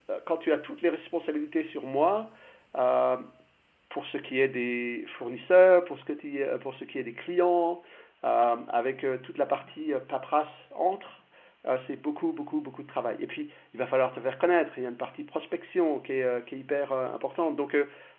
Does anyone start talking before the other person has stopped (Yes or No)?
No